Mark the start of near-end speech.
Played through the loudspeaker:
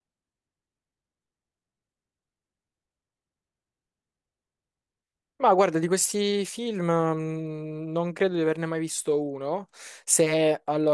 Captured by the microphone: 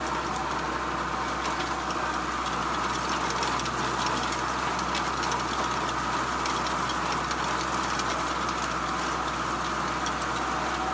none

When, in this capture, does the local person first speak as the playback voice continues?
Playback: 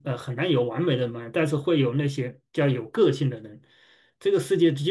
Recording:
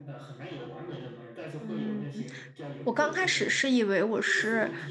1.6 s

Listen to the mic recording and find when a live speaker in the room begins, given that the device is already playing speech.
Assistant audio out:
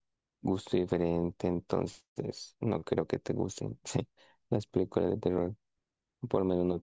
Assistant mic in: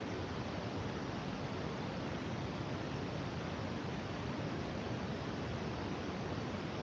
none

